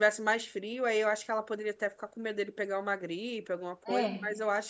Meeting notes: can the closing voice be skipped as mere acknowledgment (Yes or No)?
No